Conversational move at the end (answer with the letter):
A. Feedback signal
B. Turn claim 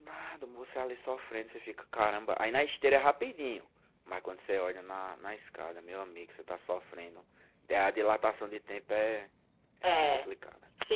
B